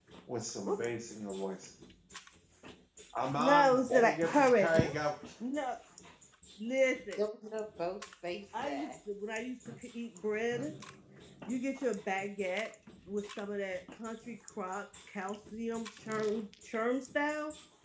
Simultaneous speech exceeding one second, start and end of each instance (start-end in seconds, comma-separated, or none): 3.3-5.0